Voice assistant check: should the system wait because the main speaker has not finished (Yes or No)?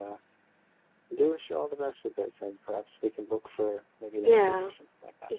No